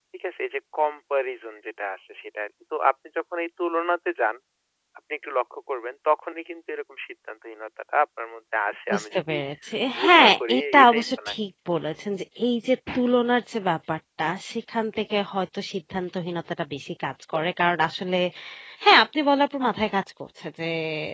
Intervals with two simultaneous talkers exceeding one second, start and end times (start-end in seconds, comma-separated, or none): 10.0-11.3